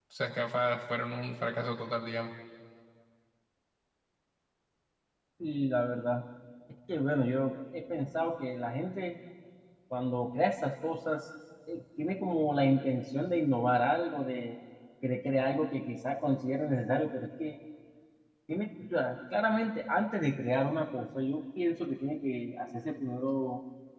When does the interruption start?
none

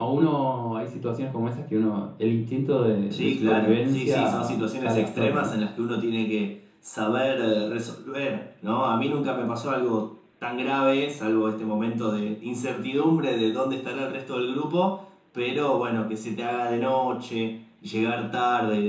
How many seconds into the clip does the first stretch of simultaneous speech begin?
3 s

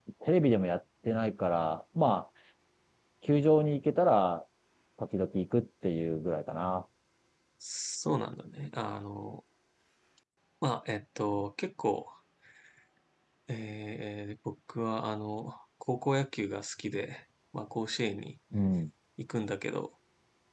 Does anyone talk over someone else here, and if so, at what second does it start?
none

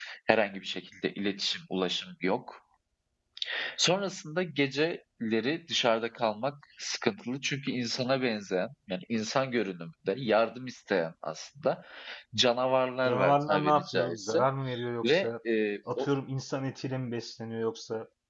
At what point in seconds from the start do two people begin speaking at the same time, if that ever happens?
13 s

